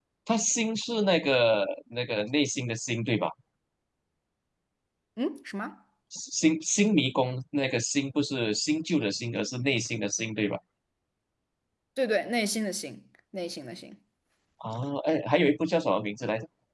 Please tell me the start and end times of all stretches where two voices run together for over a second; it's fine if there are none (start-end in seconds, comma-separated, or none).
none